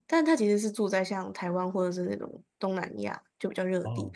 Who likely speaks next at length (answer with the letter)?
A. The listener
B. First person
A